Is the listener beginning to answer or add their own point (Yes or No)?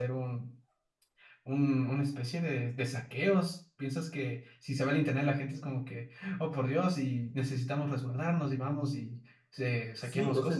Yes